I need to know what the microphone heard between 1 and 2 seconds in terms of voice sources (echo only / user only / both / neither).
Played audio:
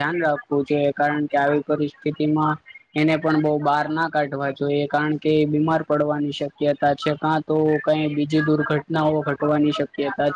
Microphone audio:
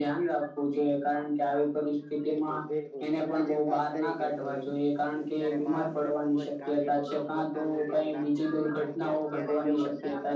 echo only